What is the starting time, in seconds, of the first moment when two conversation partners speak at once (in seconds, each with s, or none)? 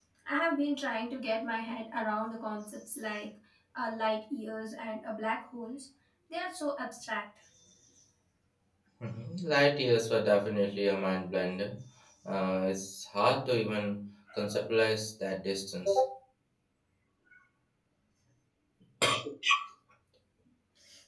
none